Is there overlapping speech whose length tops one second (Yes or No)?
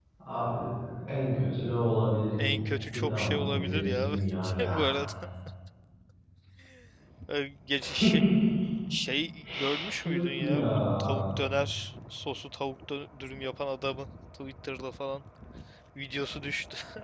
Yes